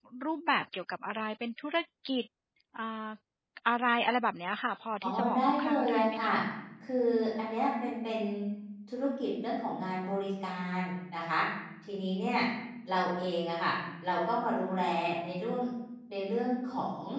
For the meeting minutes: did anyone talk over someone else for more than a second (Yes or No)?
Yes